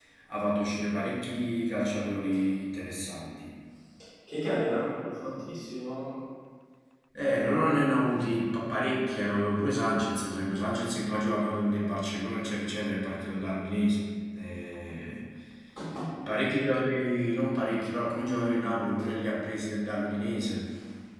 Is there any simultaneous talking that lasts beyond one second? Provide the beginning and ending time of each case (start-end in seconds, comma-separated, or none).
none